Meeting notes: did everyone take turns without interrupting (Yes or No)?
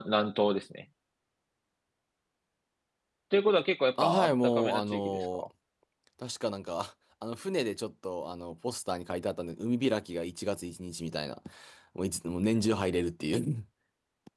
No